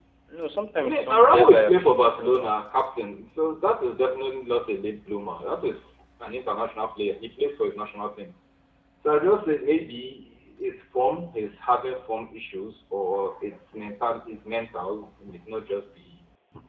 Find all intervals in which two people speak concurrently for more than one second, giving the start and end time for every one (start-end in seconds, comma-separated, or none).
0.8-2.5